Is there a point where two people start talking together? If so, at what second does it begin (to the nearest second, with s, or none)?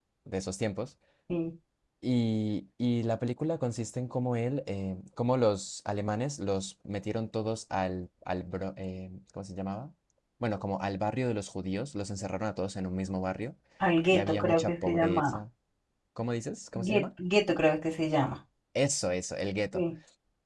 14 s